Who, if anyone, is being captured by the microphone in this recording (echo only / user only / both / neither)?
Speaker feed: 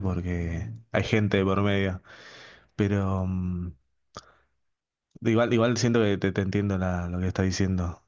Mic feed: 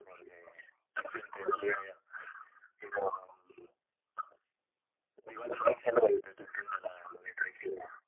echo only